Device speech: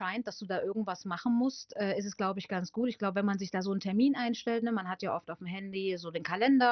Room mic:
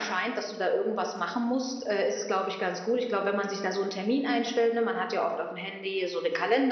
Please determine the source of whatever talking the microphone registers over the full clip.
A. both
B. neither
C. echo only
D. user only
C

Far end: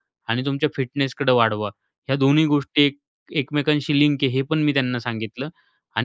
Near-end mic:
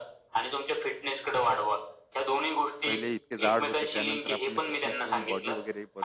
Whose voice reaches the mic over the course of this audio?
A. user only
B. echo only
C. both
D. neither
C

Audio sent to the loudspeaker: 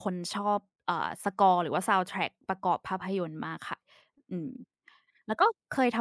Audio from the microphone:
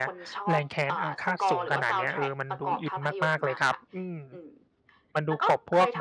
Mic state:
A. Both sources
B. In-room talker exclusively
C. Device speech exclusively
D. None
A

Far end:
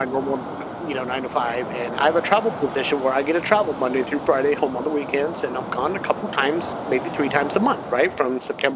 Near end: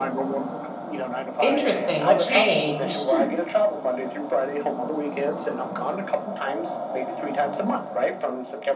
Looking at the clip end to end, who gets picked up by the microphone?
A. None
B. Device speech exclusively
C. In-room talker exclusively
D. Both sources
D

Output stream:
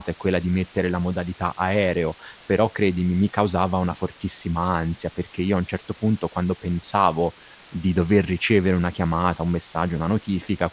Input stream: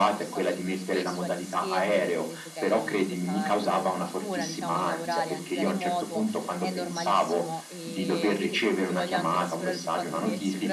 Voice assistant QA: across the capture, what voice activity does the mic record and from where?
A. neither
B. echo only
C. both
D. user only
C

